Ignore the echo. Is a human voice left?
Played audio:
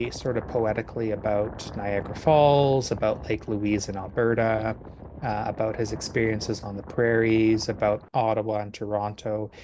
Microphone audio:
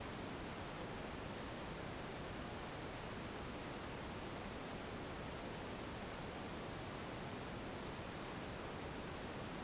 No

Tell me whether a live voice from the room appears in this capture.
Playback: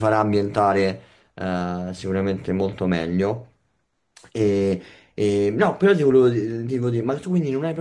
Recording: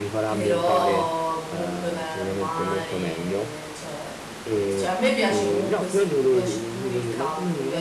Yes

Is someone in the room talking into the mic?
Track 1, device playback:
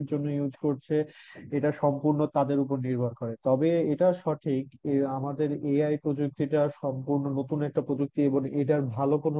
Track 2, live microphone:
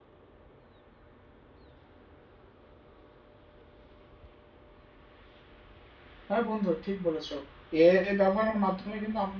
Yes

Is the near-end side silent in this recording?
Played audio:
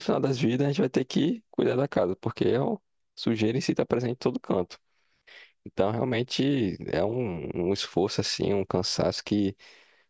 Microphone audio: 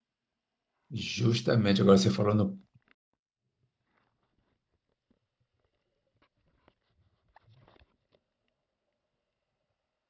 No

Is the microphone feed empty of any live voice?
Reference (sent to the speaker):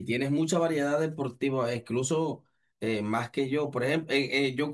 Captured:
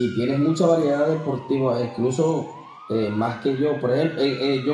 Yes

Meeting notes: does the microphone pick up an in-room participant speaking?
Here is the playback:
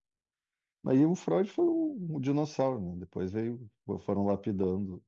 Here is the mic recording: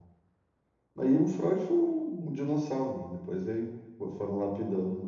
No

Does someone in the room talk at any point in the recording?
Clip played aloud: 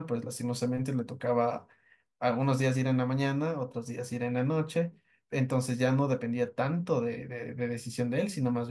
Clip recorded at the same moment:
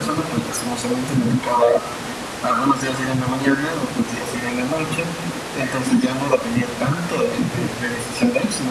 No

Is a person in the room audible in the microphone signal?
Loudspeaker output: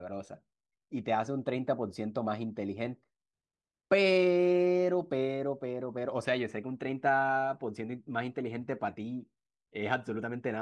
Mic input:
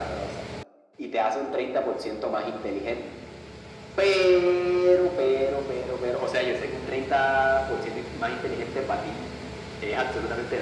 No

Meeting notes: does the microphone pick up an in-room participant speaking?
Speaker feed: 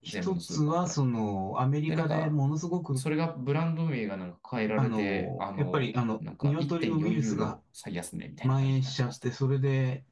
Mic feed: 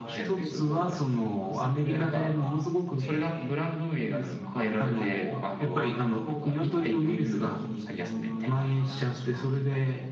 Yes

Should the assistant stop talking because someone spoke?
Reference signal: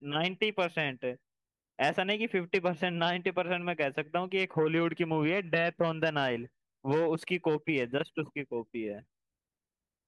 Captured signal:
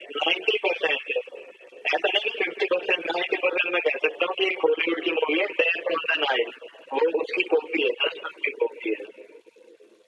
No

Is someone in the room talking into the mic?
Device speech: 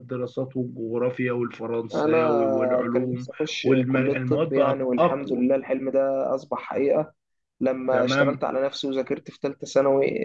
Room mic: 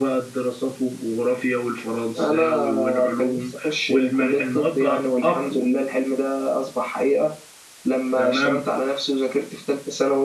No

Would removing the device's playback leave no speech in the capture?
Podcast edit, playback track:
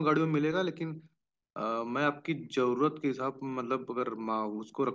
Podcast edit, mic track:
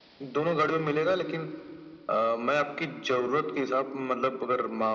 Yes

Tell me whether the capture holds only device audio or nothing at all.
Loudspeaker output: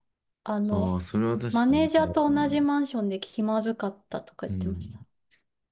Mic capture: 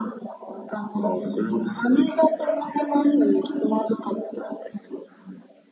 Yes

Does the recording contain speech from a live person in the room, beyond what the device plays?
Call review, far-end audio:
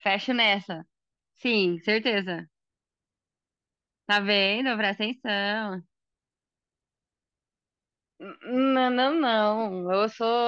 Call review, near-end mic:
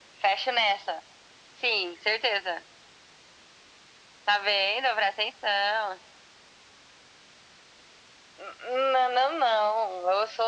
No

